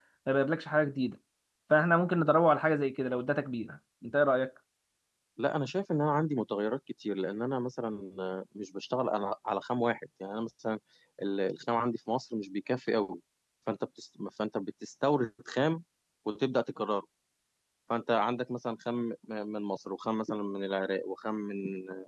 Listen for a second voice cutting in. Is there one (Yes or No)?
No